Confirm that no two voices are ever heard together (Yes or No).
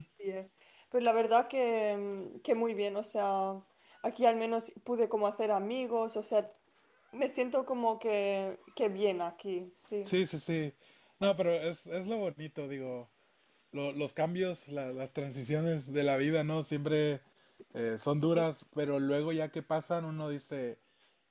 Yes